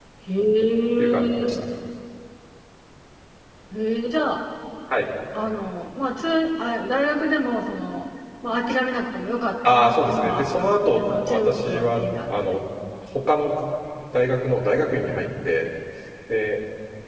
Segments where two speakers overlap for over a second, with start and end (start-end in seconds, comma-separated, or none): 9.7-12.3